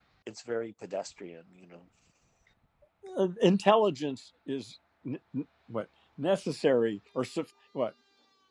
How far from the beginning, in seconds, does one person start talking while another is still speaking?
none

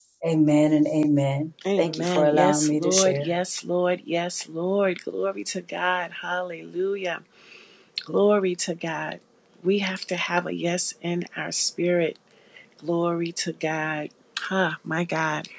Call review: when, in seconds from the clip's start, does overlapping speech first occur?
1.6 s

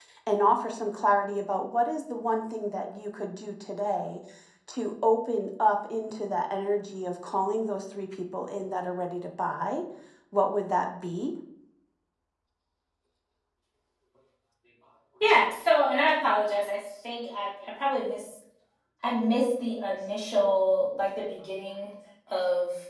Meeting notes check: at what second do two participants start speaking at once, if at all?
none

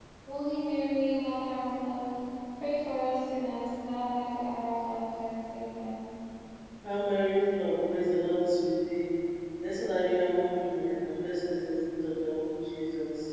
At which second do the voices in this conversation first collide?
none

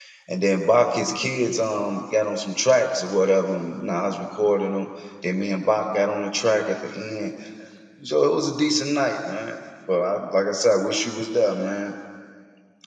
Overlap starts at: none

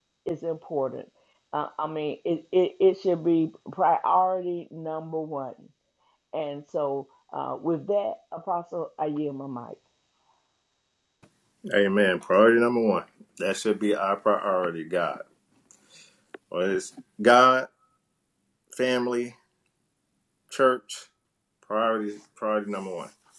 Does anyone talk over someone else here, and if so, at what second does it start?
none

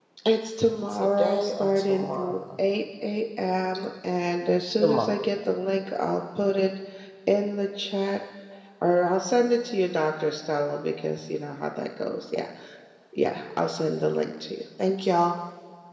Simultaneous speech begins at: 0.9 s

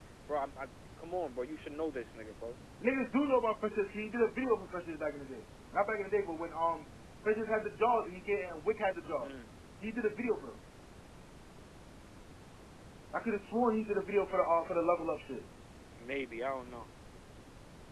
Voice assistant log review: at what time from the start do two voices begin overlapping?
none

